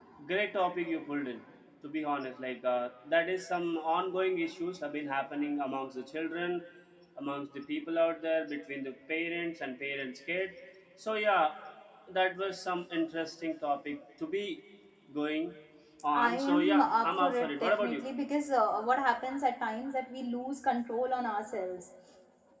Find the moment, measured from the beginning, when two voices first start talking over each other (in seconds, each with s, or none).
16.2 s